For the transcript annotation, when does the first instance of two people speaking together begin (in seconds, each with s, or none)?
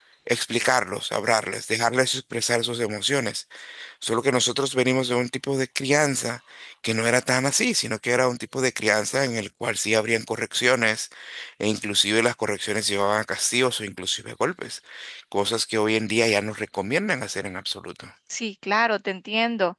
none